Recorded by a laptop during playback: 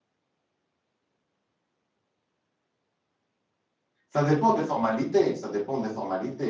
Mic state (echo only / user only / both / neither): user only